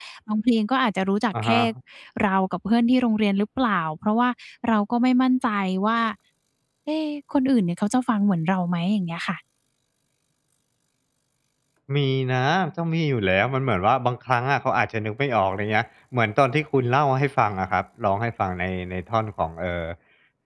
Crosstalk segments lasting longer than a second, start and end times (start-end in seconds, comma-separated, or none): none